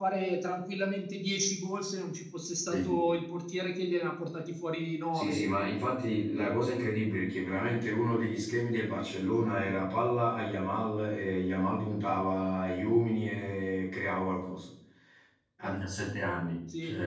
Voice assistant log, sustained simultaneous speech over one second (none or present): none